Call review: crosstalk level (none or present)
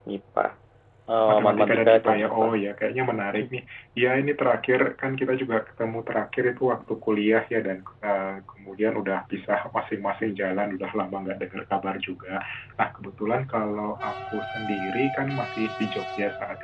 present